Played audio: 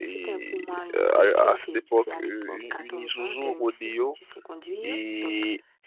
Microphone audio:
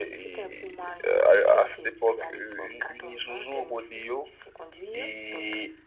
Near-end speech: none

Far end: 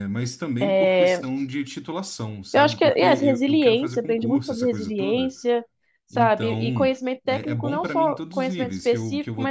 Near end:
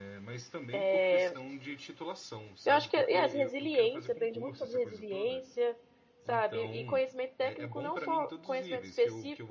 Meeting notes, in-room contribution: none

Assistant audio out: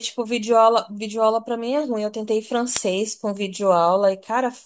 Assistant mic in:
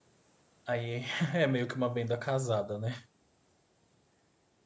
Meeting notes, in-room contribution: present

